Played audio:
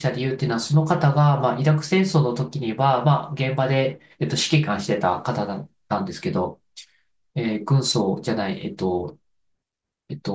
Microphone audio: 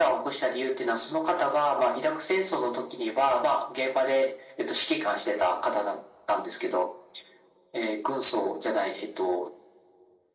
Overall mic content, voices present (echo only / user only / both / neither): echo only